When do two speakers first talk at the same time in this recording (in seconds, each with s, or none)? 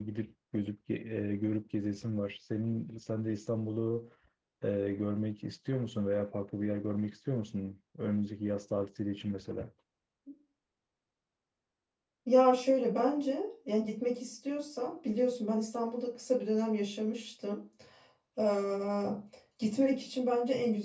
none